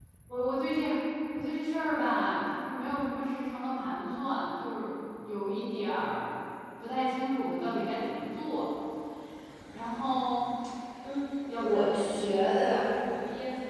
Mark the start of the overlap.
12 s

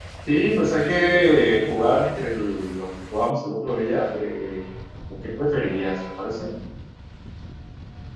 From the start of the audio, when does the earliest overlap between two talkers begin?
1 s

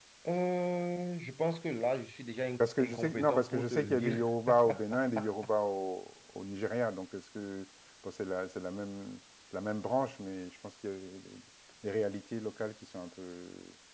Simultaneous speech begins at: 3 s

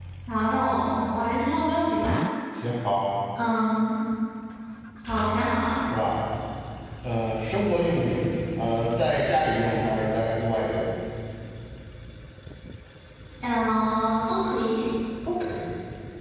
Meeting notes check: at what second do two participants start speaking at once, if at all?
none

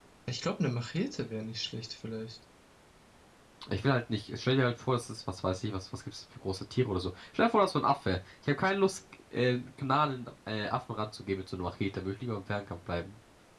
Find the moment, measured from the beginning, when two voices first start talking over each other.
none

